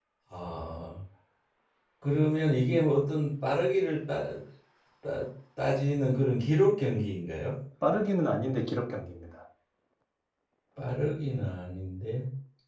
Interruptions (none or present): none